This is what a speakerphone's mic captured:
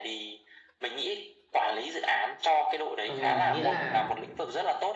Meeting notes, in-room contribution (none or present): present